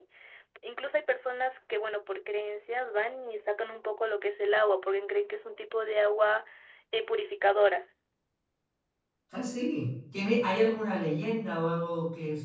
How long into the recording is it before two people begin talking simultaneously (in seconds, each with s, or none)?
none